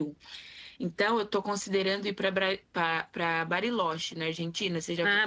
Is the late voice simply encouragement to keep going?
No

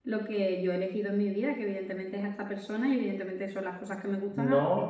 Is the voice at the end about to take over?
Yes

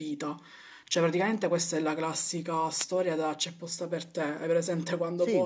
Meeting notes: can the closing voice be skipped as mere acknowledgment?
Yes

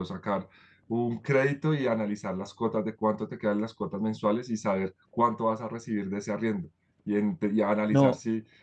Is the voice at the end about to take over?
No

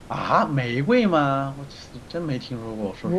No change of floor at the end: No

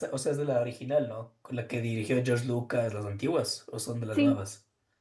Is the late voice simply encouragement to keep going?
No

